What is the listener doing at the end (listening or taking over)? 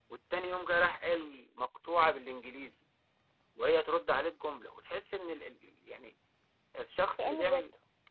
listening